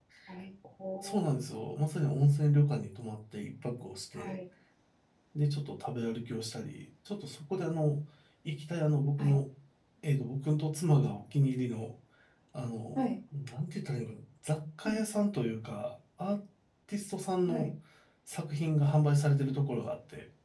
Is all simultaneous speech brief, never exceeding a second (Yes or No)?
Yes